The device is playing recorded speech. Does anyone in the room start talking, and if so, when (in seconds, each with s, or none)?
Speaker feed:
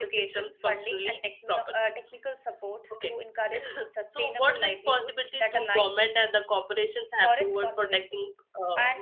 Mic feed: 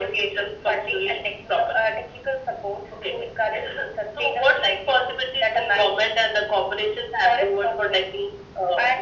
none